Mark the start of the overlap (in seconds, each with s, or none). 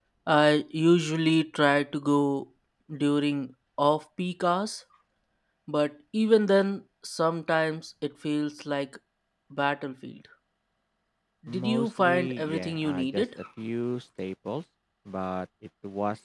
11.5 s